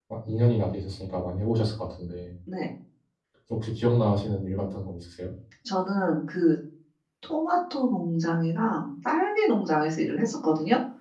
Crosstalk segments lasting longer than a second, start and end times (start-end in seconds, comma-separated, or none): none